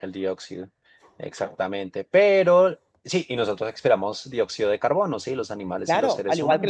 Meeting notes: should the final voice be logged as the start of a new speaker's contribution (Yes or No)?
Yes